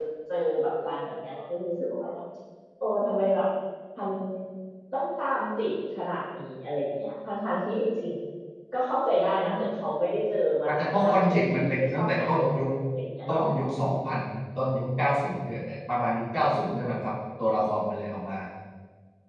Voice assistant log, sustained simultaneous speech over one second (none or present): present